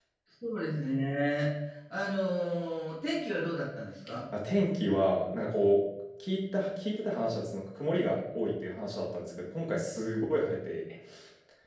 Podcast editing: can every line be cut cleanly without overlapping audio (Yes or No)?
Yes